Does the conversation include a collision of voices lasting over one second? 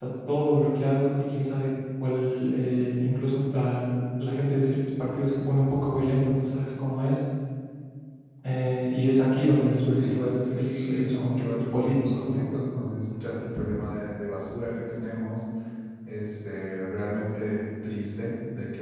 Yes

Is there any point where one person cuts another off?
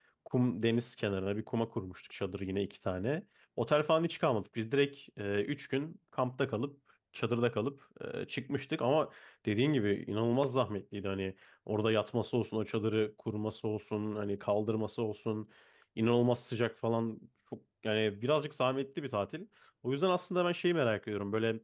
No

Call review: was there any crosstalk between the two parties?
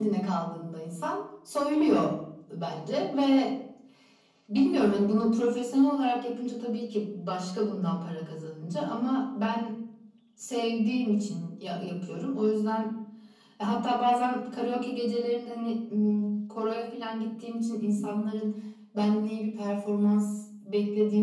No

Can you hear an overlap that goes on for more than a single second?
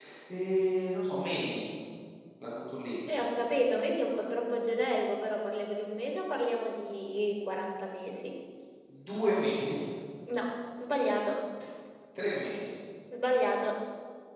No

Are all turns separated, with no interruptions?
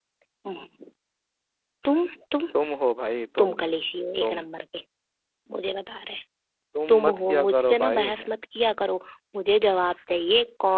No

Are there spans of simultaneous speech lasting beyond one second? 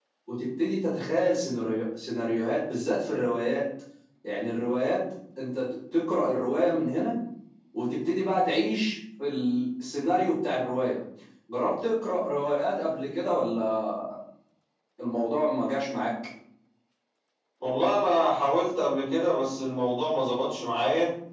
No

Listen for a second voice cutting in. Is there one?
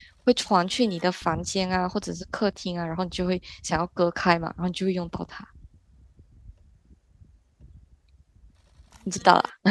No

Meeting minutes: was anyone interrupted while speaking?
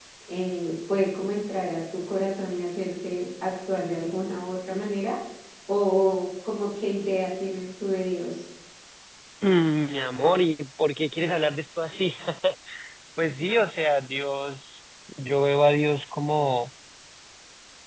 No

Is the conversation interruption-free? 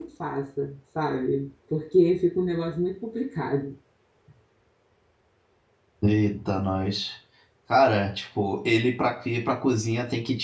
Yes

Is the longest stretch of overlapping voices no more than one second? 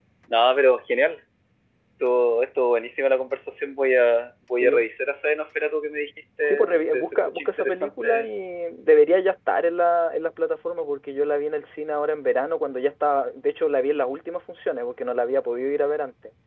No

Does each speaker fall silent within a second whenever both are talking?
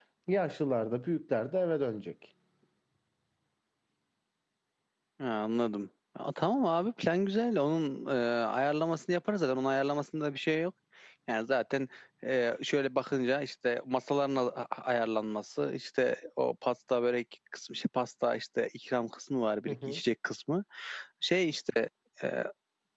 Yes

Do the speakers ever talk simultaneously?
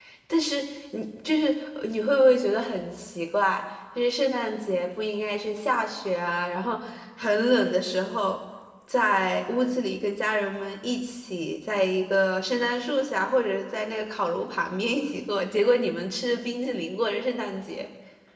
No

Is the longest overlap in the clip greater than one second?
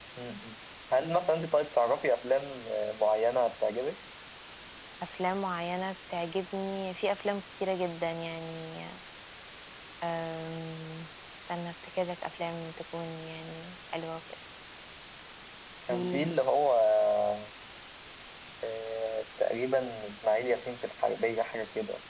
No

